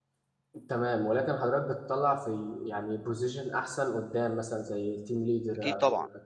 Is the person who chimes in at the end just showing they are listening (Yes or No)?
No